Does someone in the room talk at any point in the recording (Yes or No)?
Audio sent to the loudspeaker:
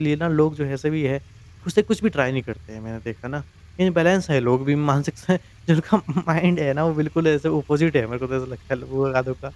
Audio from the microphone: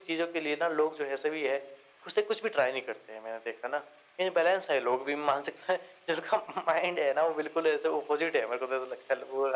No